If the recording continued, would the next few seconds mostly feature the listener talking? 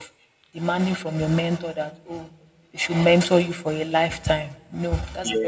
Yes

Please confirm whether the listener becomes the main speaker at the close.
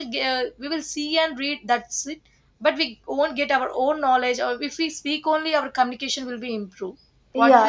Yes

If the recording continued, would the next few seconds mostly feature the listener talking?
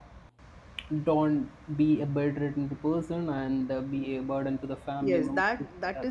Yes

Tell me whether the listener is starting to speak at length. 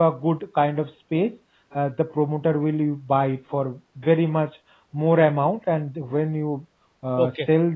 No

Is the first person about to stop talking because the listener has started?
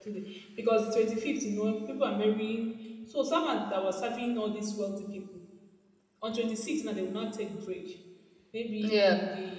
No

